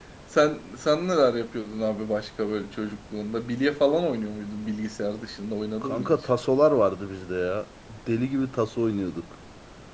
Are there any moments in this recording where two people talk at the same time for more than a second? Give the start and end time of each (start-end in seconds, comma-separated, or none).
none